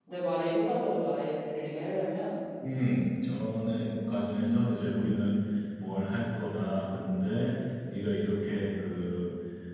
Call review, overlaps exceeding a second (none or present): present